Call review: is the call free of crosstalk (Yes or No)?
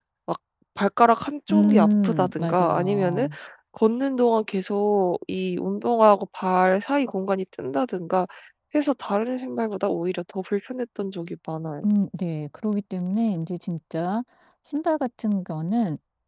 No